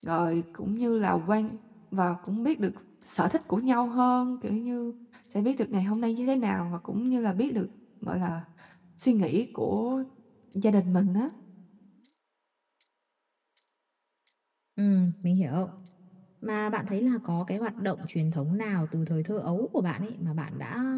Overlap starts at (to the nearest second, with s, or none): none